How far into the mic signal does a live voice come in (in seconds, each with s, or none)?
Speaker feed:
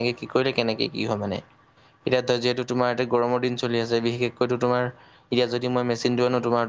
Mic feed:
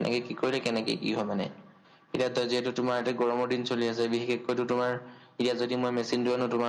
none